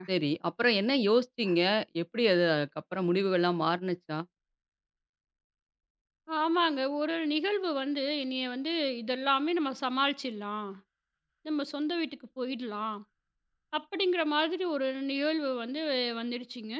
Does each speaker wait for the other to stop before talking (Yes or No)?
Yes